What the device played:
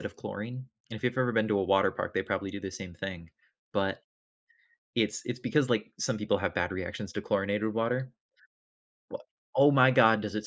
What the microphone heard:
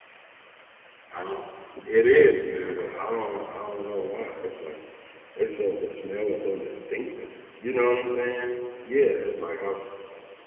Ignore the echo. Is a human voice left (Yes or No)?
Yes